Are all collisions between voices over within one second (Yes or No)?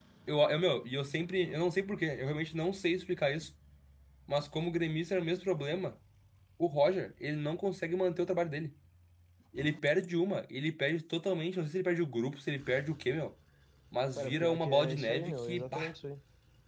No